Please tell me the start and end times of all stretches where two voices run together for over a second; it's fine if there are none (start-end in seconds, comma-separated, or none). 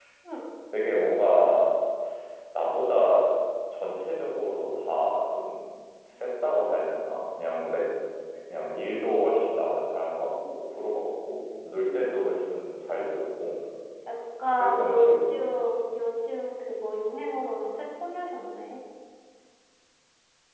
14.6-15.8